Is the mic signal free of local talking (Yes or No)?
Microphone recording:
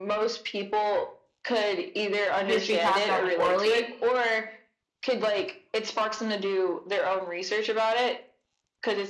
No